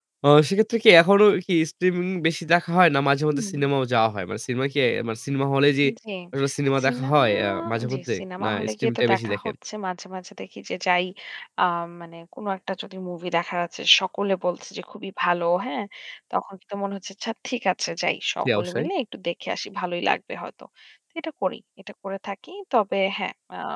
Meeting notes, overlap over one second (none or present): present